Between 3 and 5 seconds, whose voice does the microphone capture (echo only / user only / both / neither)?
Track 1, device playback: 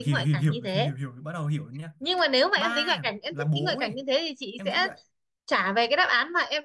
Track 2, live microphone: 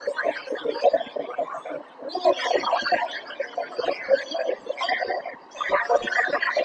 echo only